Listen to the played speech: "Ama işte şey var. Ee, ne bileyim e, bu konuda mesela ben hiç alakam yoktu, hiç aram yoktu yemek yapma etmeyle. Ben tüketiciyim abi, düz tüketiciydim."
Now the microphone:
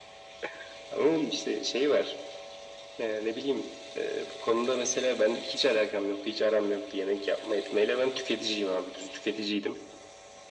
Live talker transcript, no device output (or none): none